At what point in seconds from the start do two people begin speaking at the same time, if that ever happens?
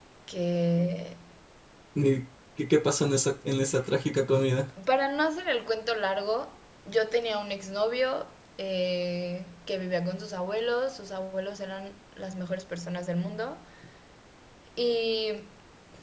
none

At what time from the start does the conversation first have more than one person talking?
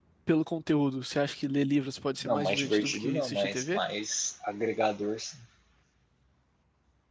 2.2 s

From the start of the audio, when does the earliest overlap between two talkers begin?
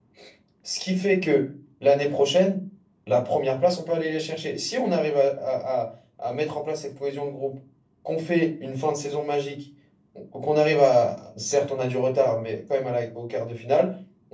none

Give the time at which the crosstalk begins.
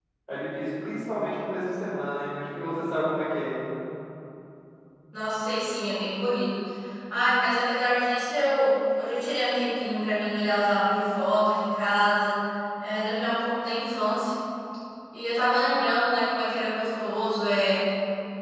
none

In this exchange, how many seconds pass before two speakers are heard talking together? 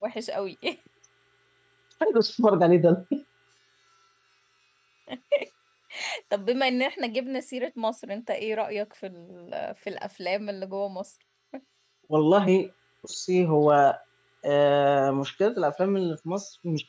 none

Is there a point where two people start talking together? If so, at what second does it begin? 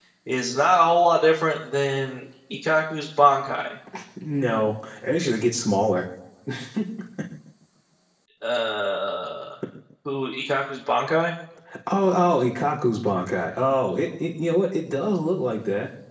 none

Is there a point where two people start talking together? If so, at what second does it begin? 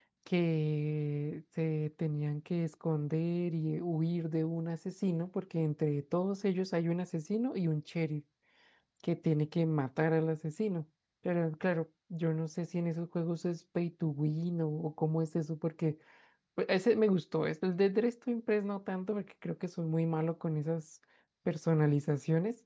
none

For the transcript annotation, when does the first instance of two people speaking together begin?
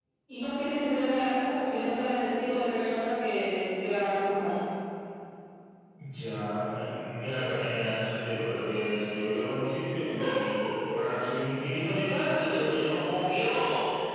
none

